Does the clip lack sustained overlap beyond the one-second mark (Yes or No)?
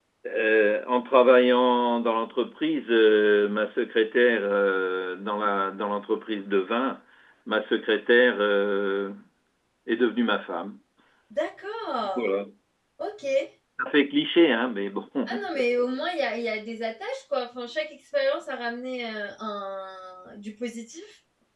Yes